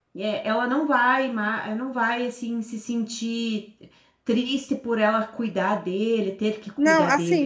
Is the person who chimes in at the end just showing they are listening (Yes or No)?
No